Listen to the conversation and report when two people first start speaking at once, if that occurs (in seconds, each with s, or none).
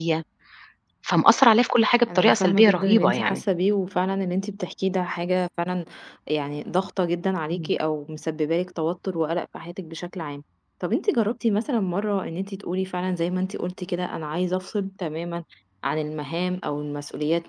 2.1 s